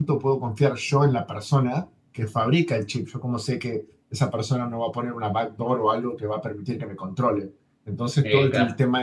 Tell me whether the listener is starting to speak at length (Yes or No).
No